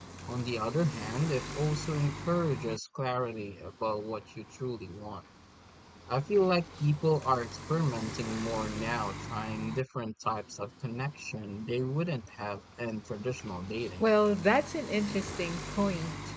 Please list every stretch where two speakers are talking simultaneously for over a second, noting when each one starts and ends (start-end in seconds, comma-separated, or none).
none